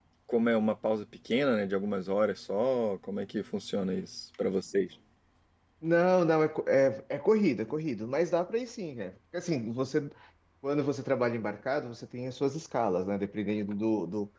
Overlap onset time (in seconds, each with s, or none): none